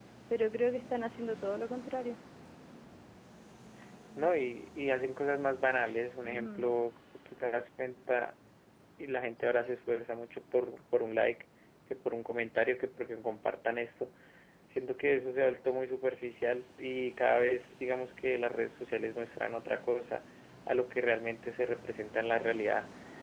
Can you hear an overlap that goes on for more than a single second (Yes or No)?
No